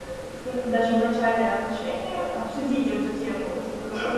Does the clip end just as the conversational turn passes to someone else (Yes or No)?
No